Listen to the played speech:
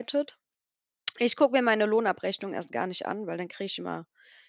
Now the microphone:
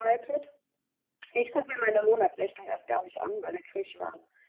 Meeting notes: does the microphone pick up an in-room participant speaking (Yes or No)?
No